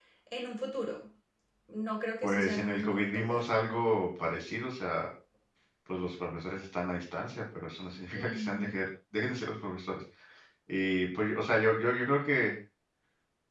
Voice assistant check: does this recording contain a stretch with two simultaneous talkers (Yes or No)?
Yes